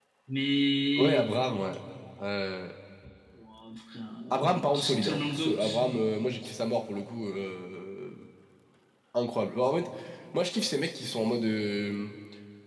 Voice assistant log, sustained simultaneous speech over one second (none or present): present